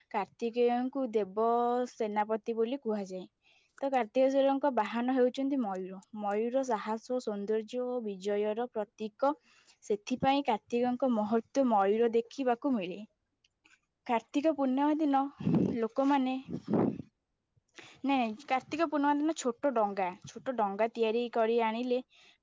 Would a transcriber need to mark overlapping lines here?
No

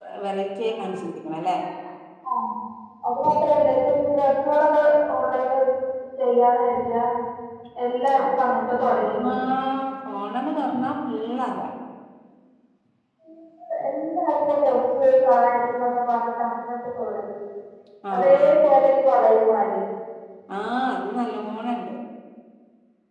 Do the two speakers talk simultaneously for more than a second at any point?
No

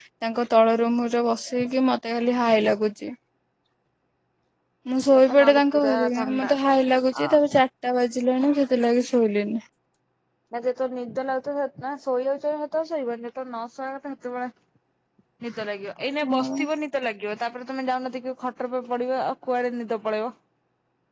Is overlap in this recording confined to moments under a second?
No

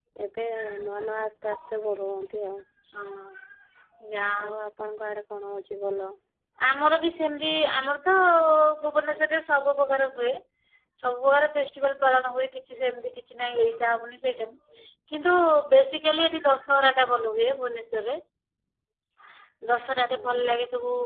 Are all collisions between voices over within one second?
Yes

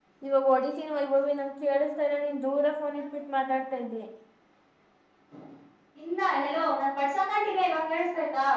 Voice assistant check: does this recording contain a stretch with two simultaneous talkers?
No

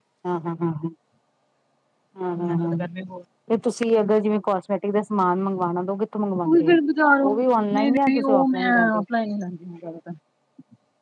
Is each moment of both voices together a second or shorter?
No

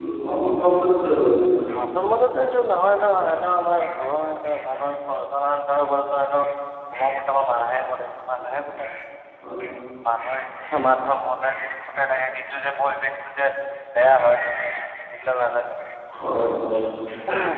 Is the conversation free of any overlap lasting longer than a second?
Yes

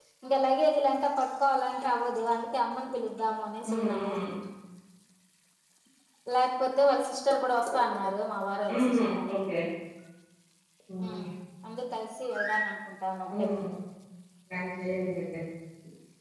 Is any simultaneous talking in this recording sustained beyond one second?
No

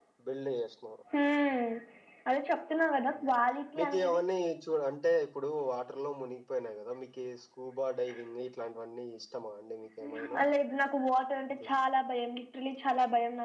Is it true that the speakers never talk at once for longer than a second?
Yes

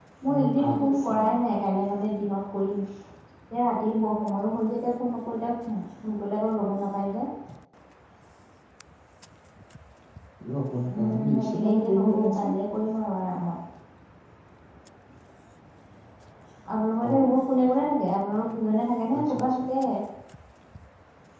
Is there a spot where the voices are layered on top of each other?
Yes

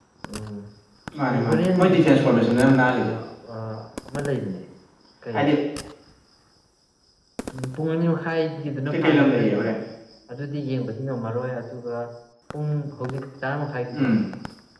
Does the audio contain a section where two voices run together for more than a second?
Yes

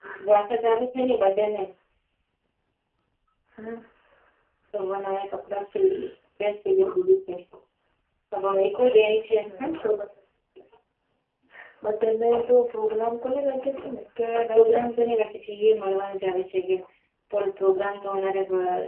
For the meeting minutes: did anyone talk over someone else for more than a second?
No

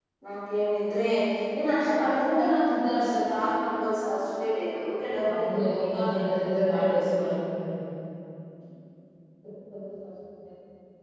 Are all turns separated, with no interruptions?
No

